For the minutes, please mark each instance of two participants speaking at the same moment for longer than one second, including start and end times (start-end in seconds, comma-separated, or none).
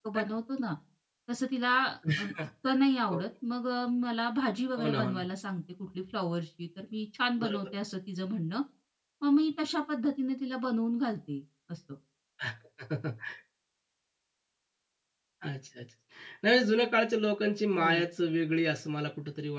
none